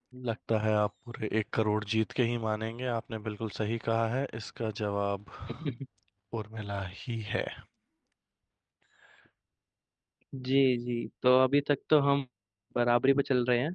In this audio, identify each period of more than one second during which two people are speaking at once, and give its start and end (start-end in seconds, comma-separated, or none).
none